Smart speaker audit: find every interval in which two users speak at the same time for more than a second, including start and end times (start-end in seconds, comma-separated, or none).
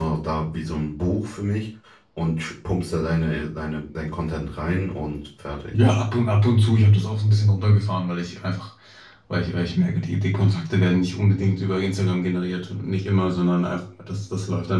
none